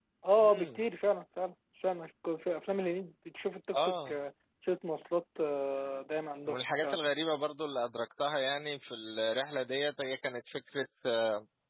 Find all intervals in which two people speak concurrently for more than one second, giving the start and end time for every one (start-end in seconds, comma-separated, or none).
none